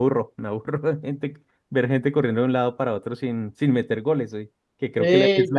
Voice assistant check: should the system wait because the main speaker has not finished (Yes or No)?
Yes